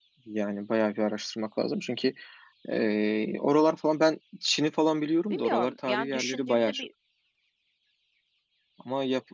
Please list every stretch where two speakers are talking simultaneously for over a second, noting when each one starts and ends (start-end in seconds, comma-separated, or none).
5.3-6.9